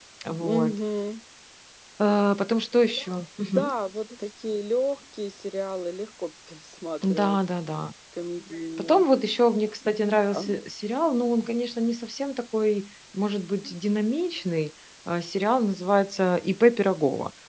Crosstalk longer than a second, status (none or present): none